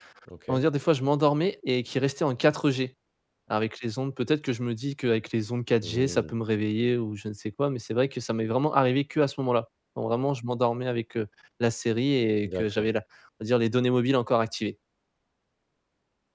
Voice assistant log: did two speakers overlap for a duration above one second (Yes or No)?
No